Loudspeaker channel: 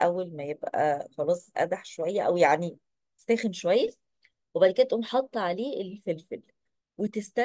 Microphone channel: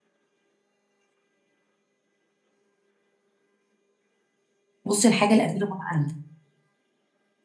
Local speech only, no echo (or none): بصي الحاجه الافيلابل عندك